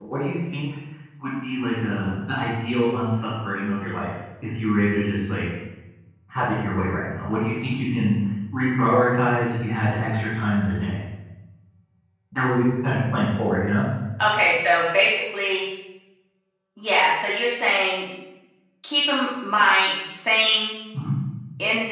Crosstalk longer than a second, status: none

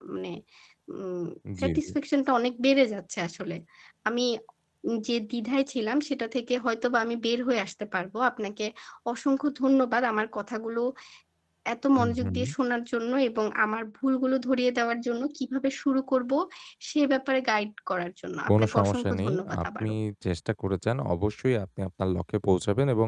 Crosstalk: present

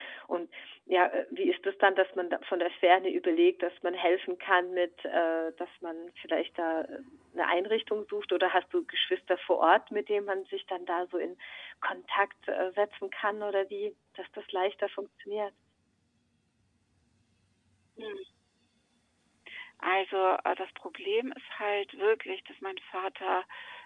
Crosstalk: none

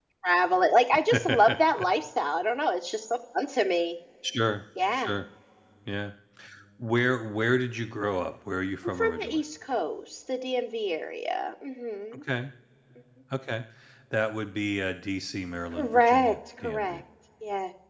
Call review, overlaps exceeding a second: present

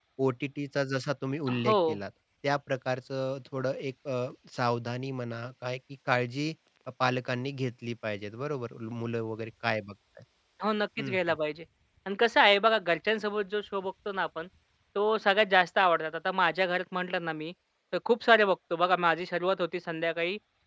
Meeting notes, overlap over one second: none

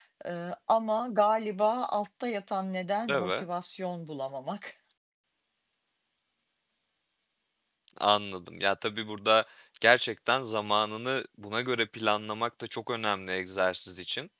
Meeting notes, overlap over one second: none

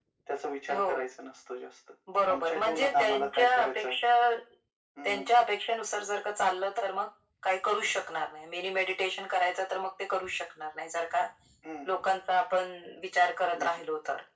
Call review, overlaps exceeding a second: present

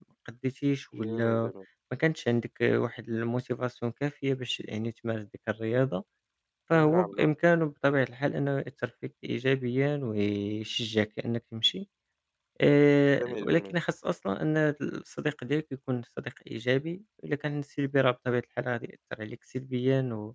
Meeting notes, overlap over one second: none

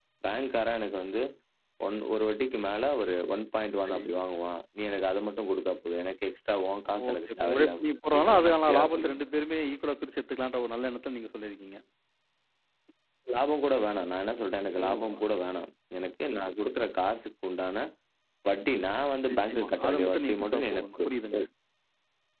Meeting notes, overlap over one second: present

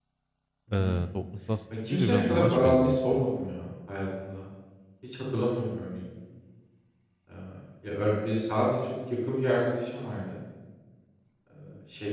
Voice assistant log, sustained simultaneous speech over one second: present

